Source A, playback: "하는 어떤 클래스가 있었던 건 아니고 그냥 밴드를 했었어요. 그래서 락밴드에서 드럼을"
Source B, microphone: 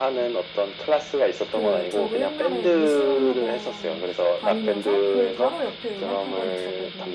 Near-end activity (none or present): present